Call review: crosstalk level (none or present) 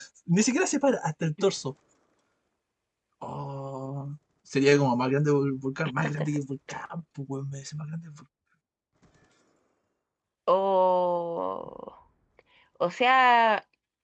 none